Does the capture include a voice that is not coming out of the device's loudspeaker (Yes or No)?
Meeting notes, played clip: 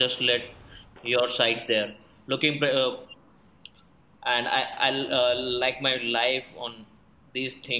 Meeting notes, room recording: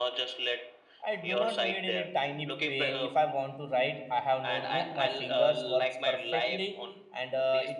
Yes